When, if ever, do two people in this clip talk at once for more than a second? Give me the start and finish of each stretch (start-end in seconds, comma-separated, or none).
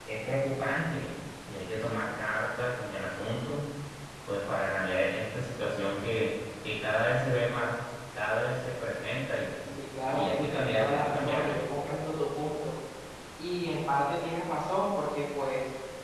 10.1-11.6